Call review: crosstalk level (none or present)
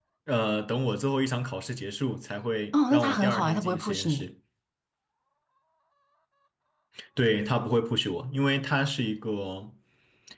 present